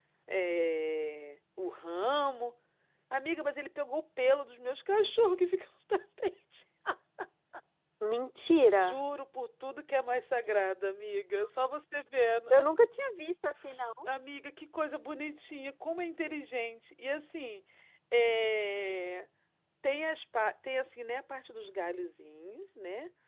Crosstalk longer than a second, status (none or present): none